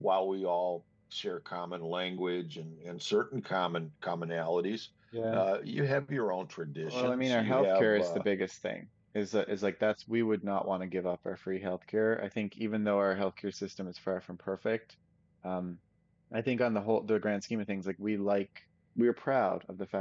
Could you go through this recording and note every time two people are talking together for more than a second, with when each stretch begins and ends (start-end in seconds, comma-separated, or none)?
6.8-8.2